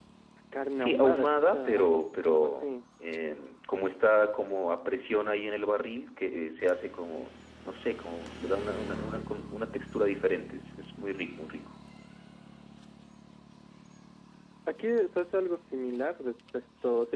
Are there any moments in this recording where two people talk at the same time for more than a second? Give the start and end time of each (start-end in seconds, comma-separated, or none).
0.8-2.7